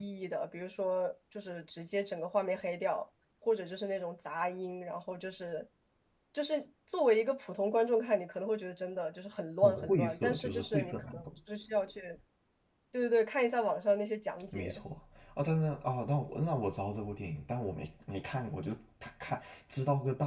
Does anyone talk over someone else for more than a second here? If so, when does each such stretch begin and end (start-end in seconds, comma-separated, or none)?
9.6-11.3